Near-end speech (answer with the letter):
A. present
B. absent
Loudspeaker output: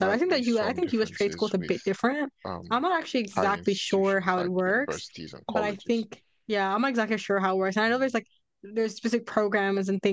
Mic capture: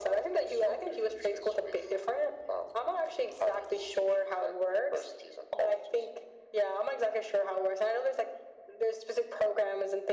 B